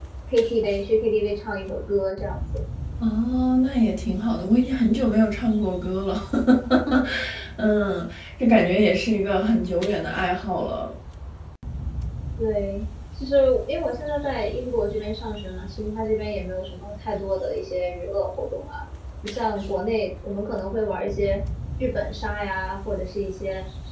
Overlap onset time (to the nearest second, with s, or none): none